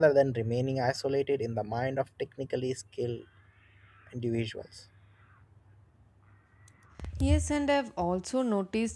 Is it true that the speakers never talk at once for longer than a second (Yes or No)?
Yes